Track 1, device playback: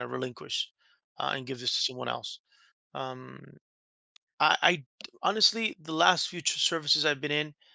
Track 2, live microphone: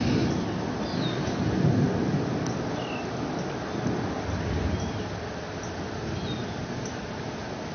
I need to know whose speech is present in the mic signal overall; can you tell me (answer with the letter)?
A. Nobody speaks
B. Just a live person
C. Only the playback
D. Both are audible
A